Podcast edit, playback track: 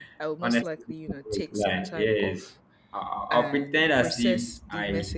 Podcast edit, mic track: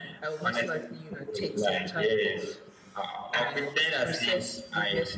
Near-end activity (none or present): none